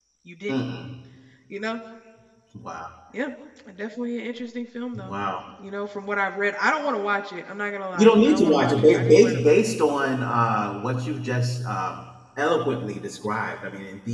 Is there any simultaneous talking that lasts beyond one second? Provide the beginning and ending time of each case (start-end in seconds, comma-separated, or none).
8.0-9.6